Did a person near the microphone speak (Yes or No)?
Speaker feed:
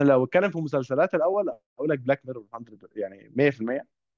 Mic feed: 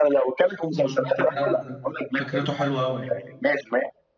Yes